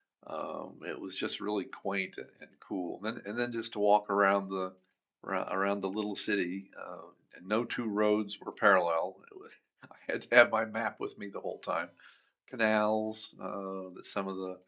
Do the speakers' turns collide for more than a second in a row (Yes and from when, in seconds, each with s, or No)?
No